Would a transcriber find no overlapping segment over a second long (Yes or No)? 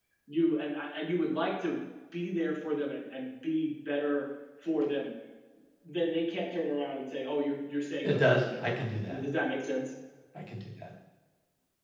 No